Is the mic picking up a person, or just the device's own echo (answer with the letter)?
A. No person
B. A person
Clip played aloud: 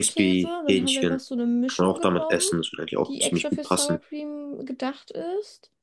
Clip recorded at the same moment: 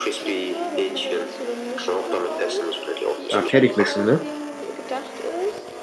B